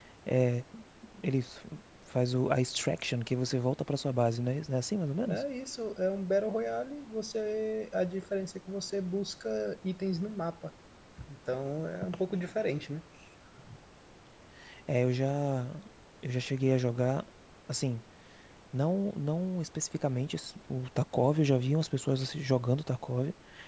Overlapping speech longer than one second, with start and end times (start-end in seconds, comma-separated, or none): none